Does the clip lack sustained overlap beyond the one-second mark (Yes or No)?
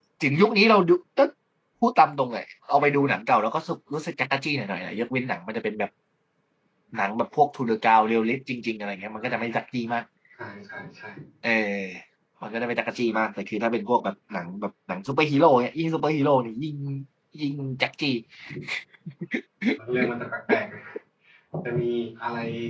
Yes